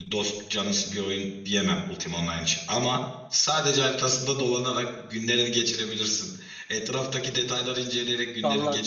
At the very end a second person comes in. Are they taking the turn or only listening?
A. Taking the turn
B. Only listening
A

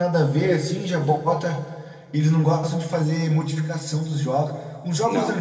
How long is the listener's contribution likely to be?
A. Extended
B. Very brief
B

